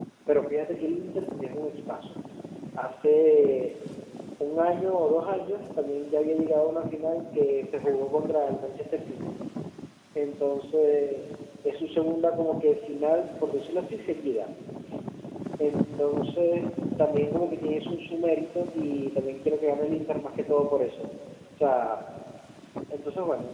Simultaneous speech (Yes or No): No